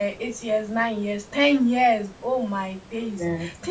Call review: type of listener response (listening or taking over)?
listening